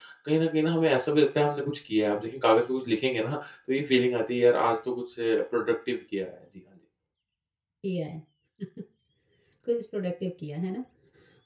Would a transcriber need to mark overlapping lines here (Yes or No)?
No